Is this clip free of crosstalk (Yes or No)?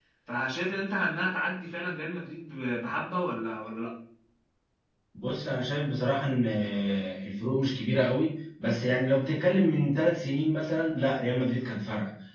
Yes